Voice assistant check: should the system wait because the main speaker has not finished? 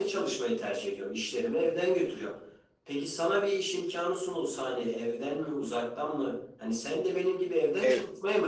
No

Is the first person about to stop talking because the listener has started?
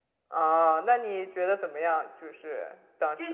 Yes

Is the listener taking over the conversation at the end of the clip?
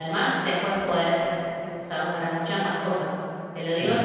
No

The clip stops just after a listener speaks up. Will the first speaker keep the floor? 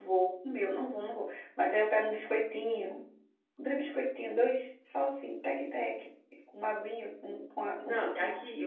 No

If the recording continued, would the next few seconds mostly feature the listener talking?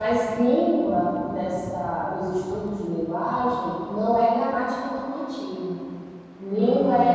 No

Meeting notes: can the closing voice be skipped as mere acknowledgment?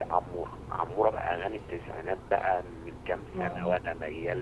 Yes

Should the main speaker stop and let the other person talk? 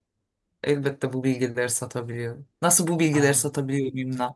No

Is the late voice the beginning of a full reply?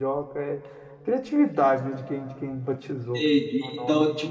Yes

